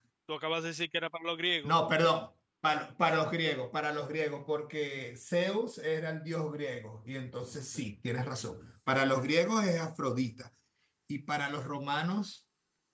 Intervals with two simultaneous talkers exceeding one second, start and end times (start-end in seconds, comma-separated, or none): none